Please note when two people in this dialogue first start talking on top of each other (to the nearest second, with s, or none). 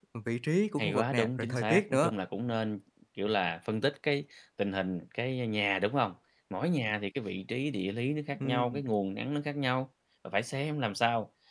1 s